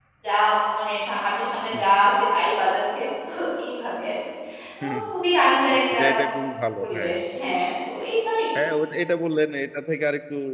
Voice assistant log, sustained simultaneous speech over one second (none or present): none